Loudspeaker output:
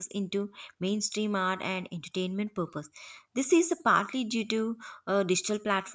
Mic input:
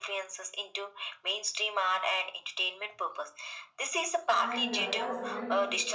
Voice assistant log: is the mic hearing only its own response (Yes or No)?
No